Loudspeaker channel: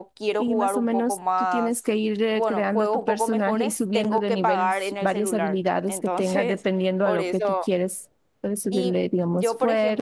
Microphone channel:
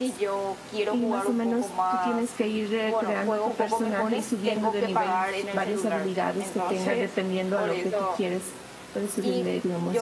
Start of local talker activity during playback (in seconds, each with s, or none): none